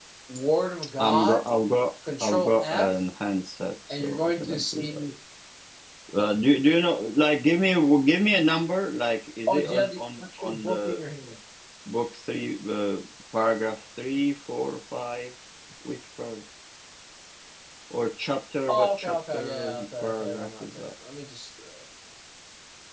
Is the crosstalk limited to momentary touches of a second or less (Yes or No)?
No